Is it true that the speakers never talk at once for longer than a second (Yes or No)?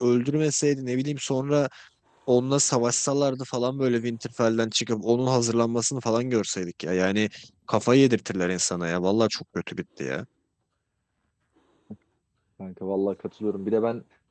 Yes